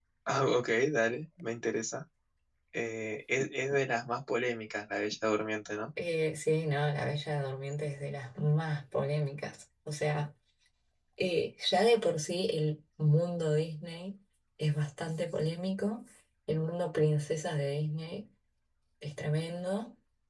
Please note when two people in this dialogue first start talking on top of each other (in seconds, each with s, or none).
none